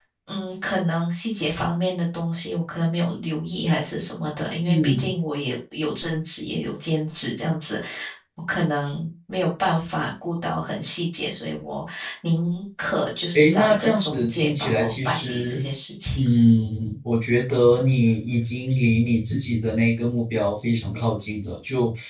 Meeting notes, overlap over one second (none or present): present